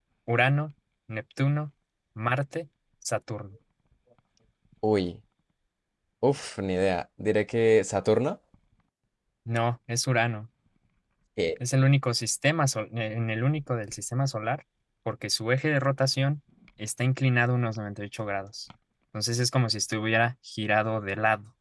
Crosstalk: none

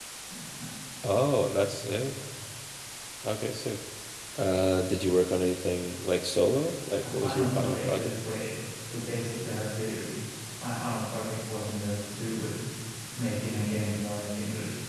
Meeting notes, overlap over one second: present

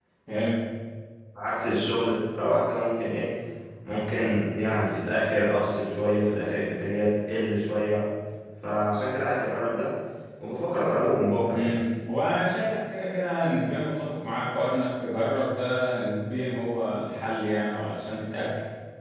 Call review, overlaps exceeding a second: none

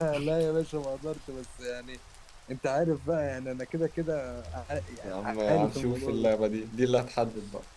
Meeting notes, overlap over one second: present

